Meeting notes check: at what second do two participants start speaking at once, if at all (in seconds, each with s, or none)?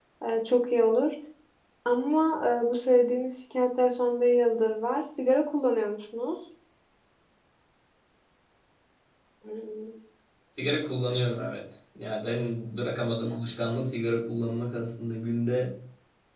none